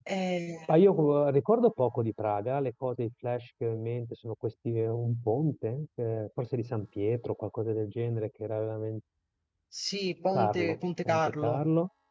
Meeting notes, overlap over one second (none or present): present